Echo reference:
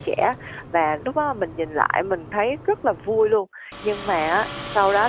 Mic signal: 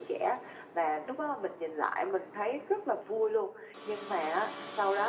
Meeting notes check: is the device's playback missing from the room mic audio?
No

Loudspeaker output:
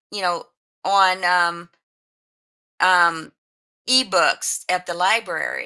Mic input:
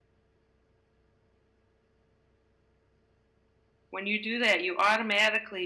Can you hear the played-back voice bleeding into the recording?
No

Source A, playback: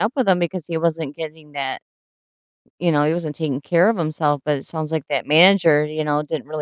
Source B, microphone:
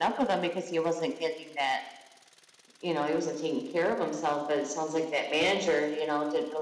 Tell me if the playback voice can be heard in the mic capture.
Yes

